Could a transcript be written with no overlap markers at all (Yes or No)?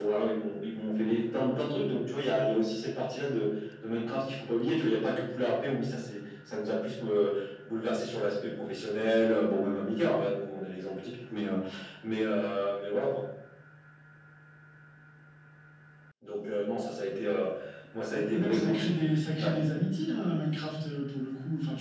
No